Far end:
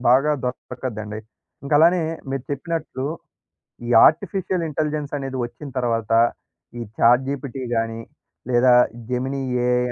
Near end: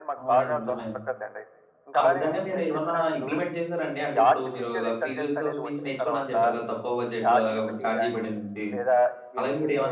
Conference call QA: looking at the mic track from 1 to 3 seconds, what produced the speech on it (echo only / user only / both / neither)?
both